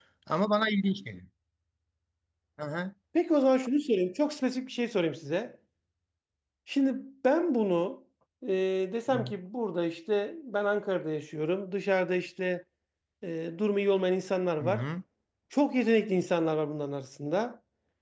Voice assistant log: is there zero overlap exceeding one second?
Yes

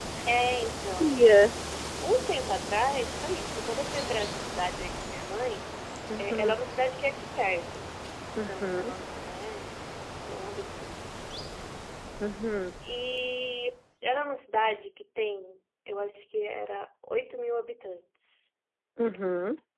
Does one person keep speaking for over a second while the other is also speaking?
No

